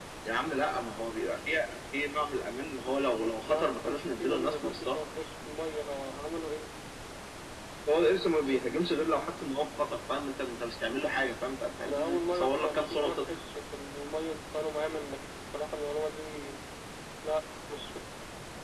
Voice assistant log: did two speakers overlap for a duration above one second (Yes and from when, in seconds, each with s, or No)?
Yes, from 3.5 s